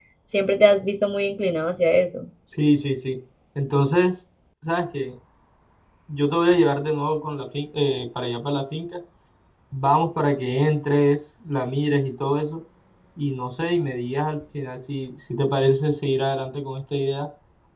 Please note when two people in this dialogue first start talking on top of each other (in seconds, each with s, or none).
none